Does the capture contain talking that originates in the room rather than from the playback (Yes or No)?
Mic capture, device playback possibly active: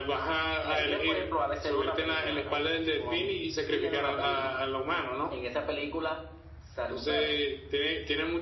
No